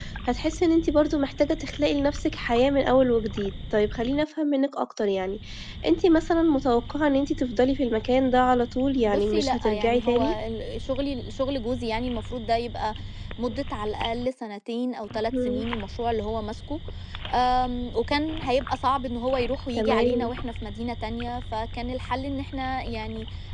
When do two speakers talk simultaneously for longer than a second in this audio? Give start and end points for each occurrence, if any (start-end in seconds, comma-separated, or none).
9.1-10.3